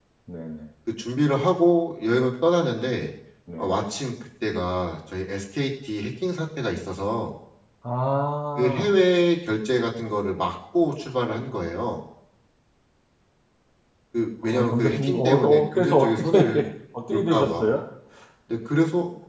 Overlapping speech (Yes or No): Yes